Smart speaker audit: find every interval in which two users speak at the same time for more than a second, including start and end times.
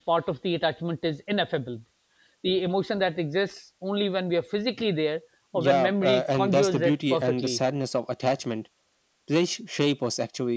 5.5-7.6

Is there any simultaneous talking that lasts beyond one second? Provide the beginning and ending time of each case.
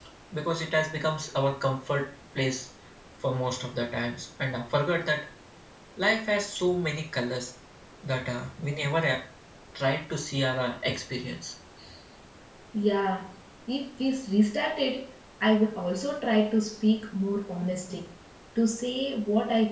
none

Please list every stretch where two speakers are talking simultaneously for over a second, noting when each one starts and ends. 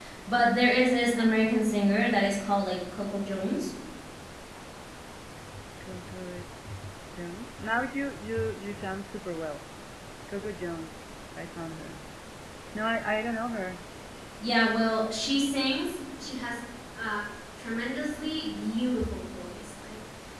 none

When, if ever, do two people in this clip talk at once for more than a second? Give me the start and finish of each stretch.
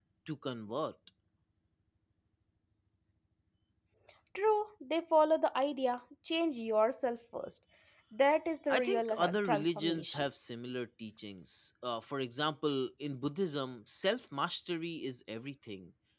8.7-10.3

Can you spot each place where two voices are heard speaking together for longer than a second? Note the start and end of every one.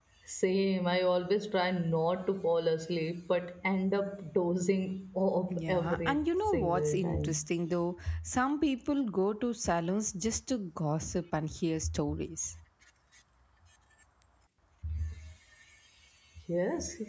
5.5-7.4

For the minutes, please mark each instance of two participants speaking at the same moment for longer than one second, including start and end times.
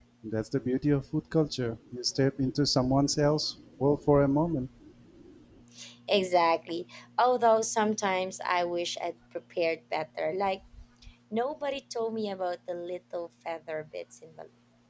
none

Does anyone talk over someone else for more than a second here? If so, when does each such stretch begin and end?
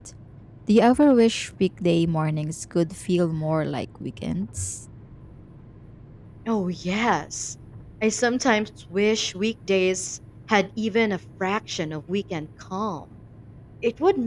none

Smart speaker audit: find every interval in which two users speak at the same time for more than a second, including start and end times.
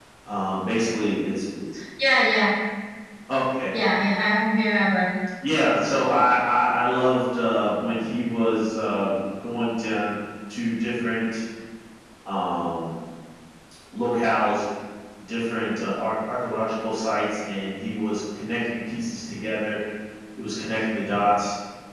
none

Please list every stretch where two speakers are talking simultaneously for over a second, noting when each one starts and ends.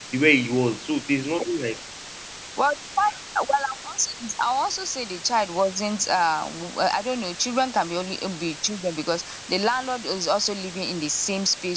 none

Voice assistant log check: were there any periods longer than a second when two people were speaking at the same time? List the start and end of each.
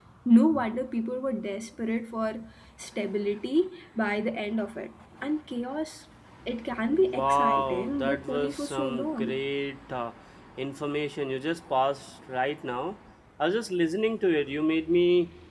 7.1-9.4

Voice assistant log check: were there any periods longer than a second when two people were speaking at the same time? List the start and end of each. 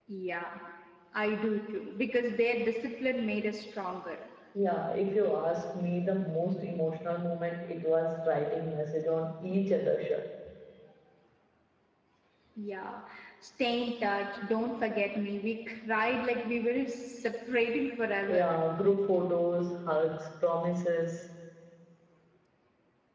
none

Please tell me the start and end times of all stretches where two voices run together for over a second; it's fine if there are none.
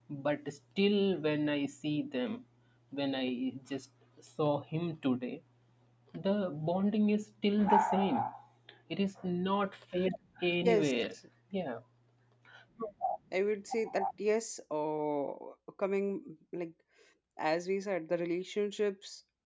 none

